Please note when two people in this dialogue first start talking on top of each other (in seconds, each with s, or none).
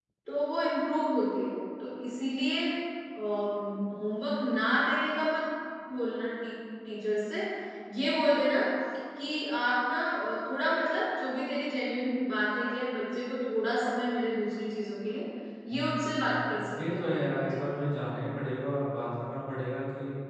15.7 s